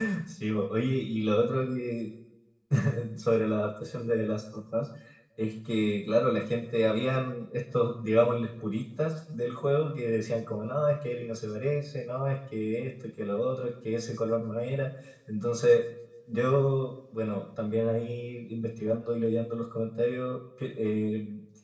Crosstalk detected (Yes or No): No